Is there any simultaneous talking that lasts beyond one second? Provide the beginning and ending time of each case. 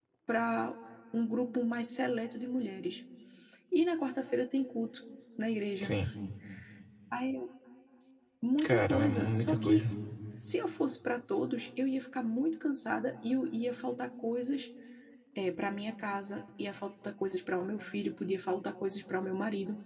8.6-9.8

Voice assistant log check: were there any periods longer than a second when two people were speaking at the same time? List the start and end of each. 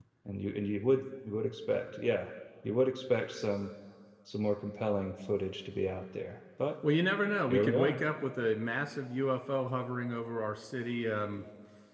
none

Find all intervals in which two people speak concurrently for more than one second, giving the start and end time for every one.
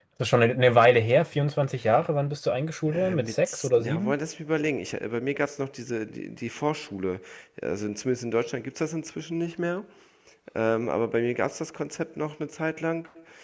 2.9-4.1

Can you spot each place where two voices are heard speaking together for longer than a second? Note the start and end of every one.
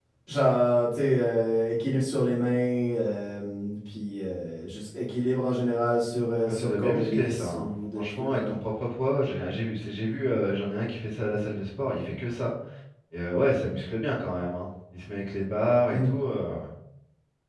6.5-8.6

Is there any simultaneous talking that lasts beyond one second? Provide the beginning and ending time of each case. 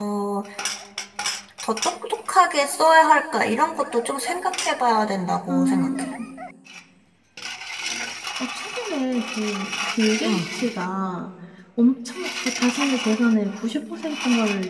none

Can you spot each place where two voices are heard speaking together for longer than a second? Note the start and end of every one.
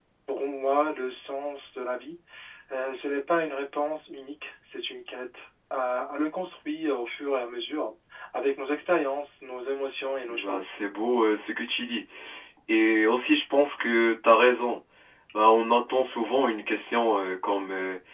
none

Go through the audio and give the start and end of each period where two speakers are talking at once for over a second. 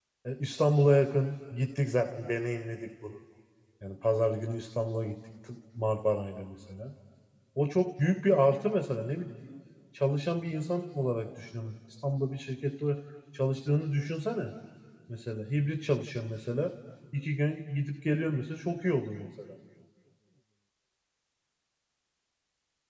none

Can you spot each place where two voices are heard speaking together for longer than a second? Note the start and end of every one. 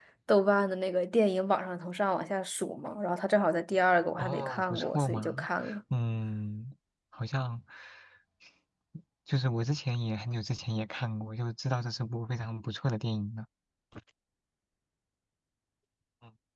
4.2-5.5

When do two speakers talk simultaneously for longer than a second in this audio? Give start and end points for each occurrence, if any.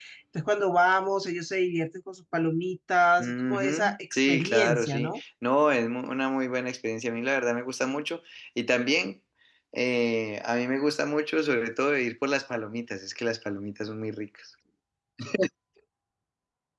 3.2-5.2

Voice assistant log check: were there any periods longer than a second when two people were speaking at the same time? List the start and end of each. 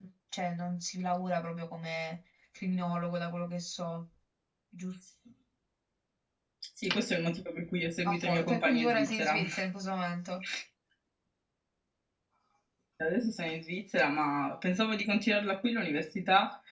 8.0-9.4

